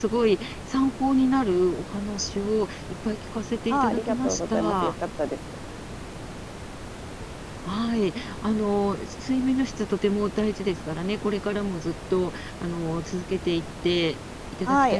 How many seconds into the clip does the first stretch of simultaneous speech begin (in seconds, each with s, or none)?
3.7 s